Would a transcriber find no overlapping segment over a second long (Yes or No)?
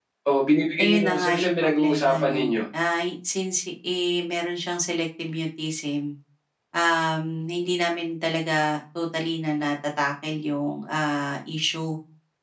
No